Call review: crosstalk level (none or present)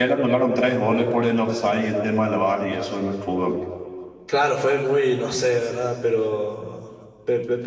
none